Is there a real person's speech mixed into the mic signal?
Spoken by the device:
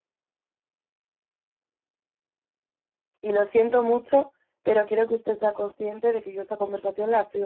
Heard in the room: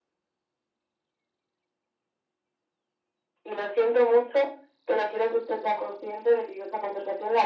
No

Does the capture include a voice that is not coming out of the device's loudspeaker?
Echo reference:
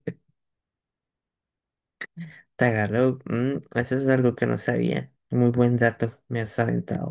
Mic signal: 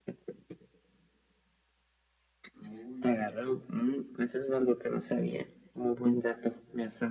Yes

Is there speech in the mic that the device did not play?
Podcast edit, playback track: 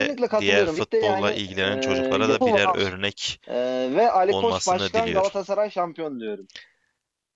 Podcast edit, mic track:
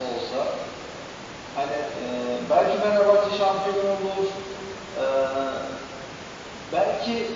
Yes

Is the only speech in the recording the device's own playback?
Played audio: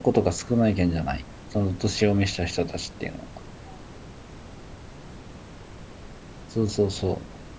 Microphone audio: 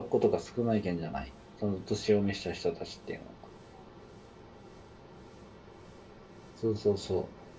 Yes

